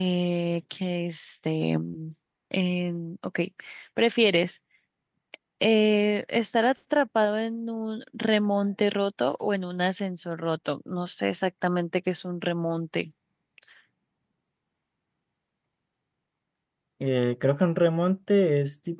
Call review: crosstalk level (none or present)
none